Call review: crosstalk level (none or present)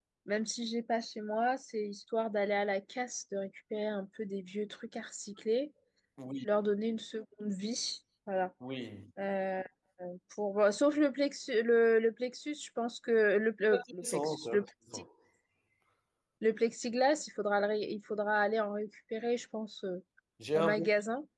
present